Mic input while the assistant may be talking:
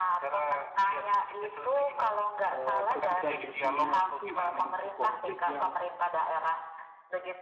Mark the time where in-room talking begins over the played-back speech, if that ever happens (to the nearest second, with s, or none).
3 s